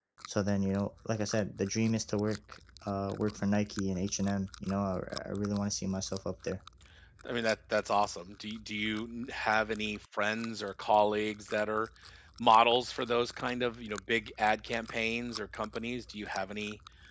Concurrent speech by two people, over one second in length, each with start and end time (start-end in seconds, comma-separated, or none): none